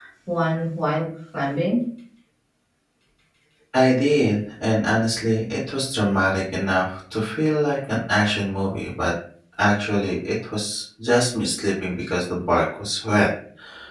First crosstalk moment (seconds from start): none

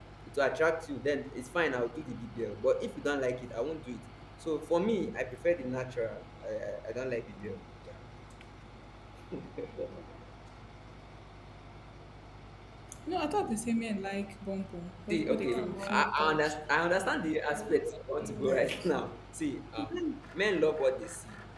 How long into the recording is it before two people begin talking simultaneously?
15.1 s

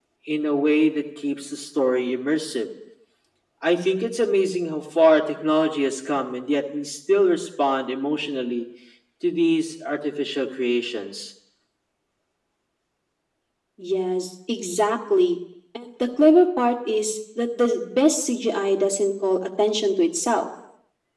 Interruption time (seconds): none

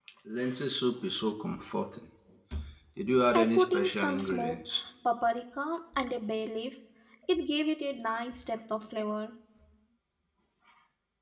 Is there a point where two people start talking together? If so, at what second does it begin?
3.4 s

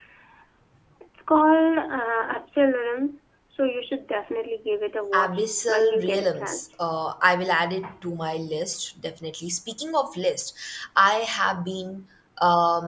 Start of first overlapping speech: 5.1 s

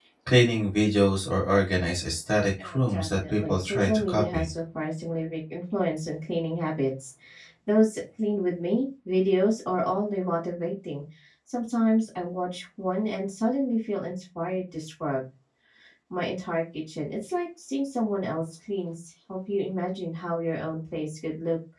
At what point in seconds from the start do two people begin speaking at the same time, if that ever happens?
2.6 s

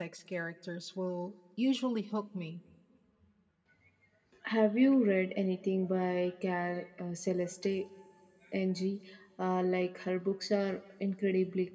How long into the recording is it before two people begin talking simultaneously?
none

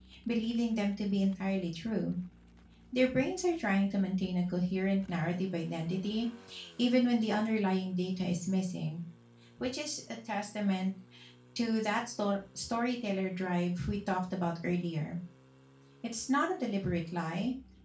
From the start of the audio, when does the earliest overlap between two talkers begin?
none

